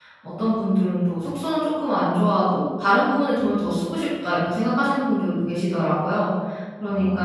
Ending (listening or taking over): listening